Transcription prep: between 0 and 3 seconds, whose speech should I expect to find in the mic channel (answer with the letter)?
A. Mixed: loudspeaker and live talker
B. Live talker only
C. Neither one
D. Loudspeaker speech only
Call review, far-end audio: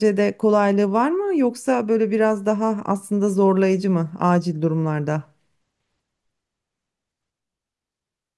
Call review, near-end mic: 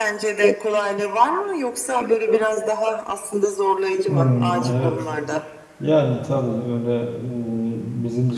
D